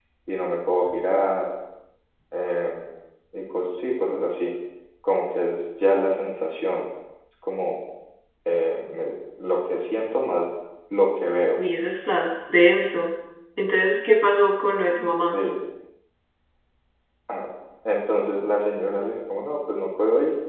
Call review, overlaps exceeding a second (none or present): none